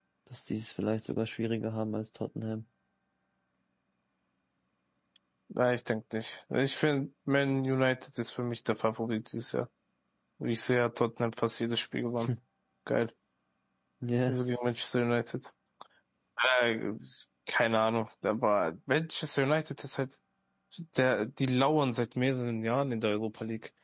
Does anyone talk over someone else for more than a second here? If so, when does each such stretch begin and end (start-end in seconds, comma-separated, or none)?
none